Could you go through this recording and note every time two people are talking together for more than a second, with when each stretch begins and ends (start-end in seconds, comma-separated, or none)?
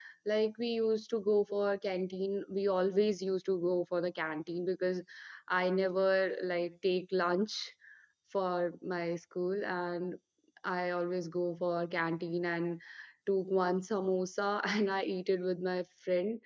none